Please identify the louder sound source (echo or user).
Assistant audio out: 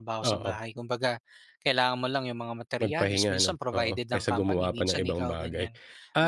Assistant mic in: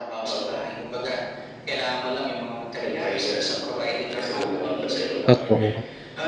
user